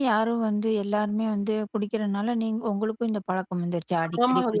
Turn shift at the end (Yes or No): Yes